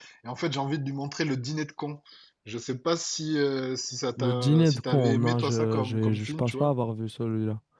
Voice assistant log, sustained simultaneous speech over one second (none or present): present